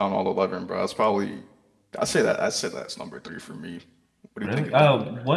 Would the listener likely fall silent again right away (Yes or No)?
No